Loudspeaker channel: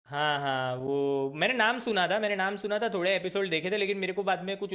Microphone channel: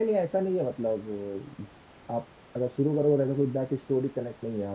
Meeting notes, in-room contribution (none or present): present